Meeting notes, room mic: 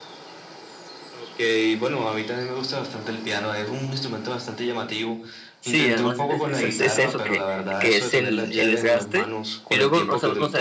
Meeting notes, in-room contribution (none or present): present